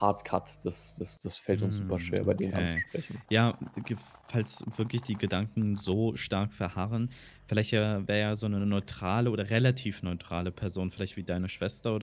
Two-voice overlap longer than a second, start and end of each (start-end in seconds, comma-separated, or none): 1.5-2.8